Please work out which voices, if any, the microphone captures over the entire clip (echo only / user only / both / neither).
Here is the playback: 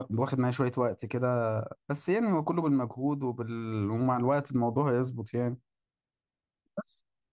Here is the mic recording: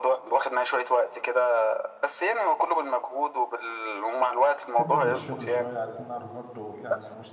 both